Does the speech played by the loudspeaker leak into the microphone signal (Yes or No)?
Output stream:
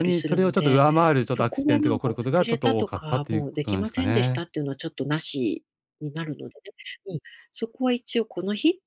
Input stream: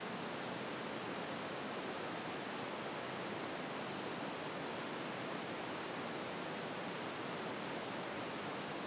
No